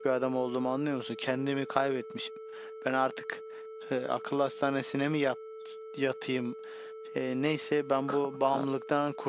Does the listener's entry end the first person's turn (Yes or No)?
No